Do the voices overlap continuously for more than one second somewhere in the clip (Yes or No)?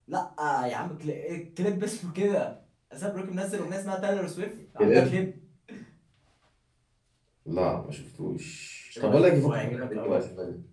Yes